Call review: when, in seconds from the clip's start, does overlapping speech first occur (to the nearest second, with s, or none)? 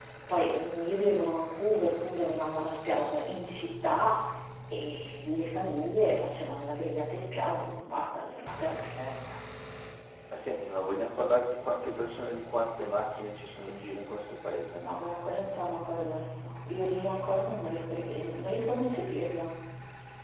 none